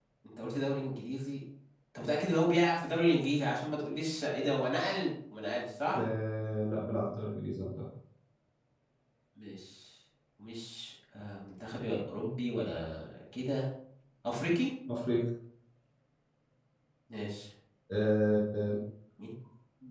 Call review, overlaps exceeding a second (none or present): none